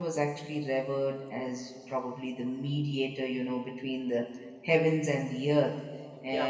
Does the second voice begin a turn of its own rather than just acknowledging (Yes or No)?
No